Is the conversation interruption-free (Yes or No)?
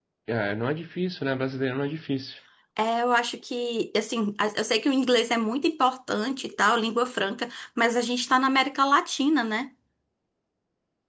Yes